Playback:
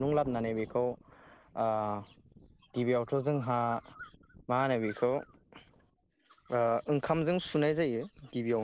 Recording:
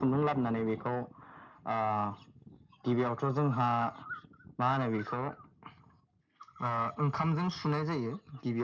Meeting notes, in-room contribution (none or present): none